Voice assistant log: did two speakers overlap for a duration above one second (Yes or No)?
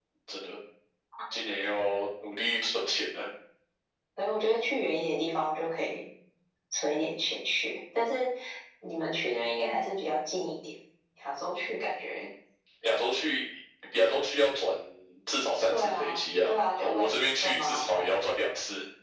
Yes